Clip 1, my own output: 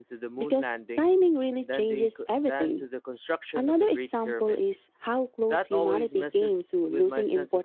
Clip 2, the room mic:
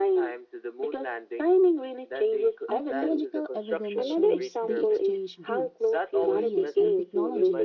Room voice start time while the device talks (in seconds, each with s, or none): 2.7 s